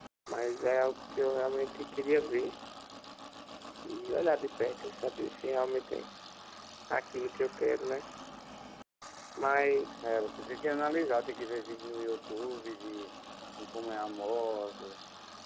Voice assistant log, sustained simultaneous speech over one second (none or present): none